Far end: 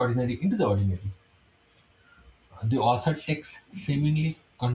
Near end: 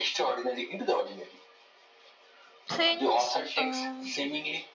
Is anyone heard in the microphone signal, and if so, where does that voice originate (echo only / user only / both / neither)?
both